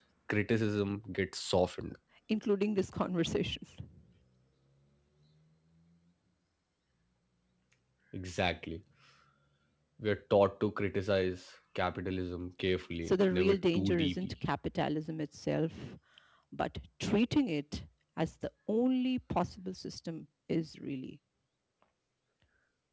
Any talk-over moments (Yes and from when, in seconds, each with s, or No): Yes, from 13.1 s